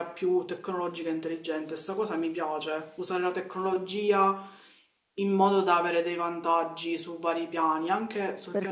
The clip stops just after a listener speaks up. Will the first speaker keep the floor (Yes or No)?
No